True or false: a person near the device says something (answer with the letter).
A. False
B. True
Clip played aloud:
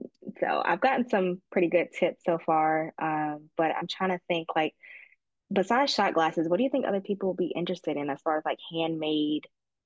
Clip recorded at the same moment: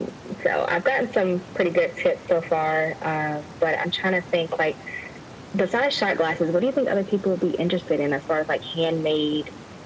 A